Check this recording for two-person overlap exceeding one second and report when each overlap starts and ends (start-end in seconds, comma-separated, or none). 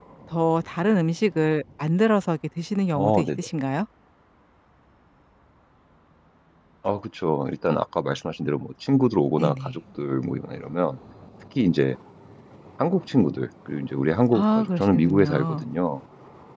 14.3-15.6